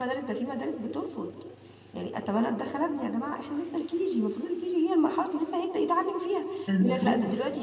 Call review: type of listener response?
listening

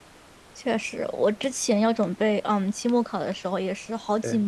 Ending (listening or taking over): listening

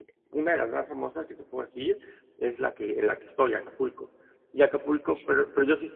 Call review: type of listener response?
listening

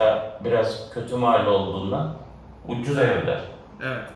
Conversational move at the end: taking over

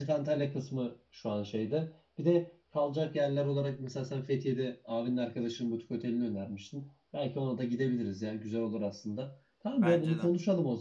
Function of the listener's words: listening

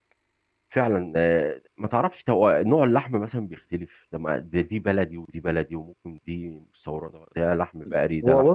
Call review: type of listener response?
taking over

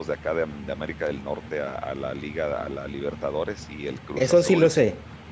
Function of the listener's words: taking over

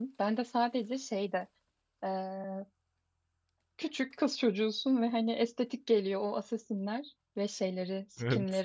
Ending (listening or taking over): listening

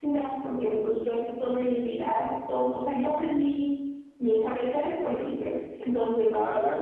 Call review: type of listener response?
taking over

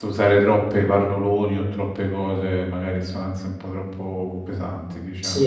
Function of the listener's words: taking over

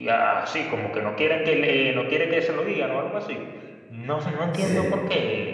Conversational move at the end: listening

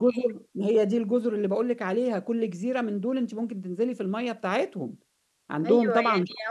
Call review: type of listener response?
taking over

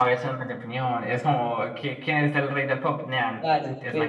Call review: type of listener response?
taking over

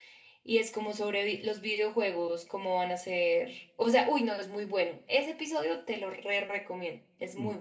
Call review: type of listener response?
taking over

